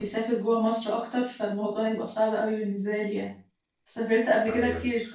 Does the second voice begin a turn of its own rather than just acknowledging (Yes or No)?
No